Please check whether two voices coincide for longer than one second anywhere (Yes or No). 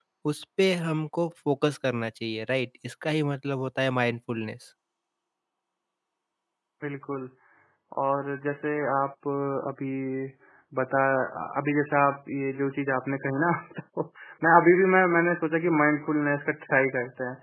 No